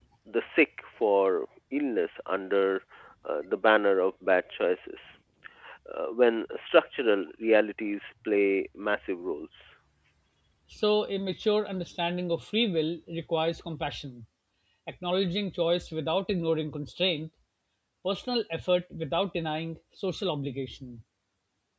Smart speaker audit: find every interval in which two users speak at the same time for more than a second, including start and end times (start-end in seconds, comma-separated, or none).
none